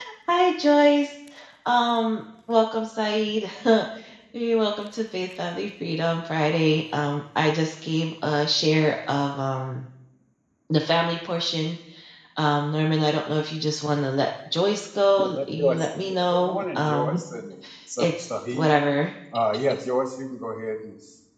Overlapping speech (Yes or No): Yes